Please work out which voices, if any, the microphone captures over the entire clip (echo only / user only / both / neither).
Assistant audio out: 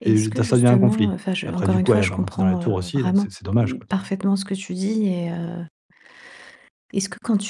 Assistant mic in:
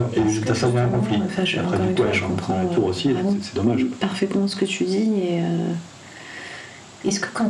echo only